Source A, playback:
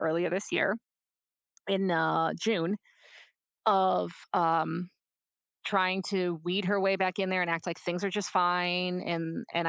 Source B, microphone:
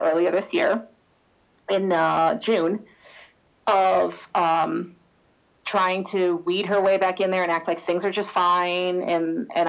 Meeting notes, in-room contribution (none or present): none